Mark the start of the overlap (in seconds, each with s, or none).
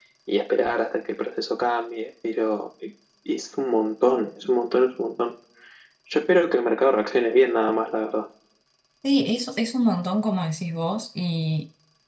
none